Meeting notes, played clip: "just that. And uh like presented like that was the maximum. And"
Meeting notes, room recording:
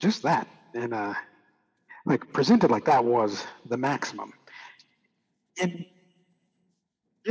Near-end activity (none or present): none